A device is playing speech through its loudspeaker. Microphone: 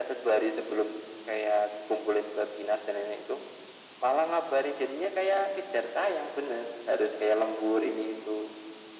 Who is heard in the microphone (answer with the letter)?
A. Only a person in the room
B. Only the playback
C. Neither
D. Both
B